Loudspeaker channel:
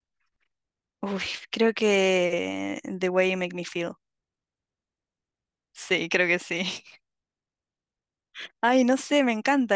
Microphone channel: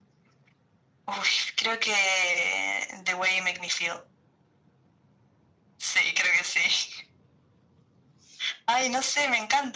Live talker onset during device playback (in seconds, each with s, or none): none